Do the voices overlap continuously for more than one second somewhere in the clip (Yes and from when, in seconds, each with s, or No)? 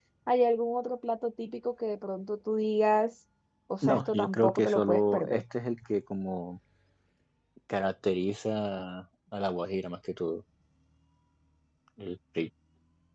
Yes, from 3.8 s